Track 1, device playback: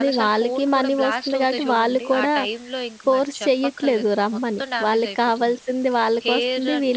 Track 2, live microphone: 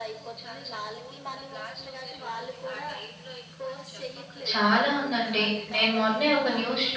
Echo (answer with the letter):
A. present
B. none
A